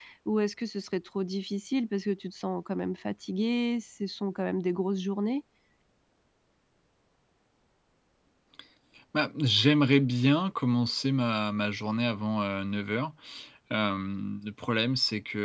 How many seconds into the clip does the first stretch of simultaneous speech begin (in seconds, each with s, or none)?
none